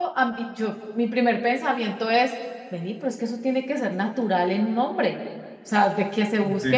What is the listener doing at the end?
listening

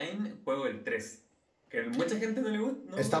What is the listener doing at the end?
taking over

